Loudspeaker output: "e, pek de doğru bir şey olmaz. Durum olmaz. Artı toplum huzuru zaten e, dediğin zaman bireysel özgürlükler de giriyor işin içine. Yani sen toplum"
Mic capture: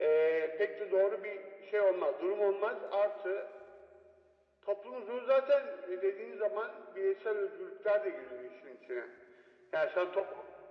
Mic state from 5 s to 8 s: echo only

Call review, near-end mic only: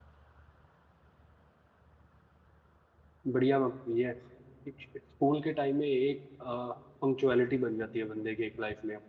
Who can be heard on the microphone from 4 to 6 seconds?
user only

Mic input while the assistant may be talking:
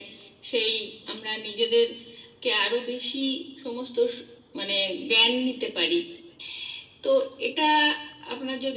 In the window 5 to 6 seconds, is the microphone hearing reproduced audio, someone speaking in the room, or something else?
echo only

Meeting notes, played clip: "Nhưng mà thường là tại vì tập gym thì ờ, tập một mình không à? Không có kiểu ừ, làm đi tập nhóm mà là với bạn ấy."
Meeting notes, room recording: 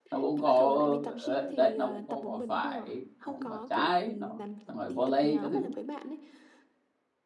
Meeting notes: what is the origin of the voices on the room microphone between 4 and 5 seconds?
both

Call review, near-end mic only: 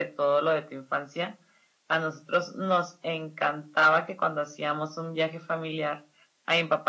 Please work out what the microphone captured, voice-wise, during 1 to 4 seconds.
echo only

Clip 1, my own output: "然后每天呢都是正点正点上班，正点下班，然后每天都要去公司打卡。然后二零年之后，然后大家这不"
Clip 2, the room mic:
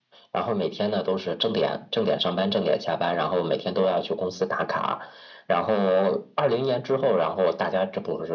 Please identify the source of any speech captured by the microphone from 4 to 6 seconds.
echo only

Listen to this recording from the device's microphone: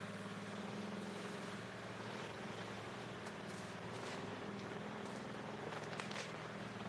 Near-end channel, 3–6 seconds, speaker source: neither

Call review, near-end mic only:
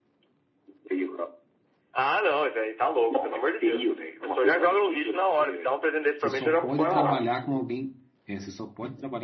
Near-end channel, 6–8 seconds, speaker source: both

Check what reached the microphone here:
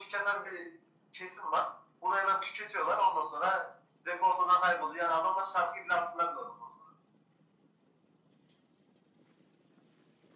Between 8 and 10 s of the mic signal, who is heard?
neither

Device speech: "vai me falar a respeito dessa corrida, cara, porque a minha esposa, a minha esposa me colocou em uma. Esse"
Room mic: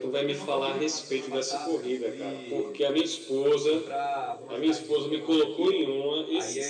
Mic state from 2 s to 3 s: both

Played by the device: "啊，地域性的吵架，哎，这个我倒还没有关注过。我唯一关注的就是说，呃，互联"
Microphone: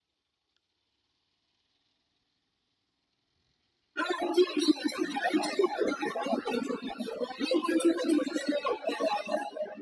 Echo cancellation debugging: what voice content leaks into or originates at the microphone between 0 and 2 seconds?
neither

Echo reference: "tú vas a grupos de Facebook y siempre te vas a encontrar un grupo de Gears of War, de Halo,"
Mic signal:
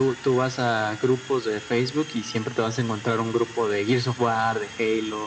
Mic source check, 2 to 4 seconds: echo only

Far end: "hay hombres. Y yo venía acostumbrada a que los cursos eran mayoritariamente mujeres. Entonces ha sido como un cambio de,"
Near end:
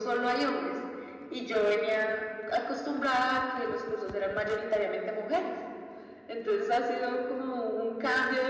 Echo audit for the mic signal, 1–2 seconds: echo only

